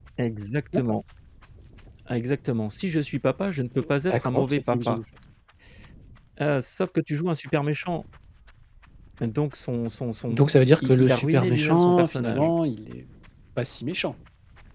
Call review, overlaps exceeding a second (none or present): present